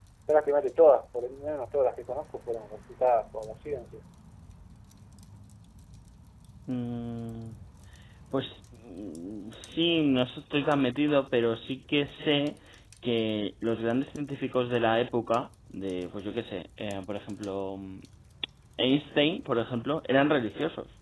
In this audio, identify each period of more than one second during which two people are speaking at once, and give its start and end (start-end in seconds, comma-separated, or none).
none